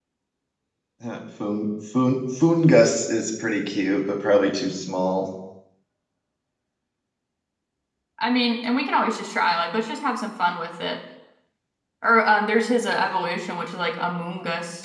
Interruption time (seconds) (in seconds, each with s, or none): none